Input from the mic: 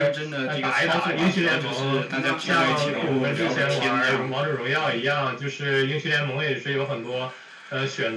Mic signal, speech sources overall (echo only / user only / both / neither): both